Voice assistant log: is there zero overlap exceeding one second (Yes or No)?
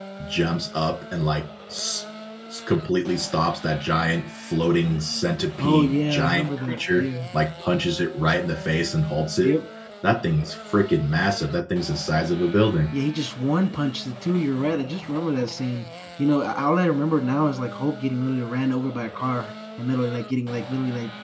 No